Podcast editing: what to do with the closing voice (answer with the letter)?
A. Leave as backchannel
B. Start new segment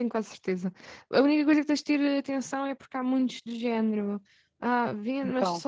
A